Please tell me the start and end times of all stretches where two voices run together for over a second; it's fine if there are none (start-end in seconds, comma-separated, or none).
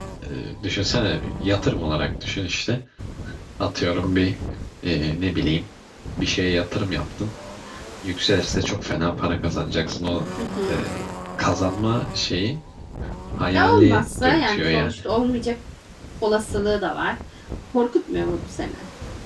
13.6-14.9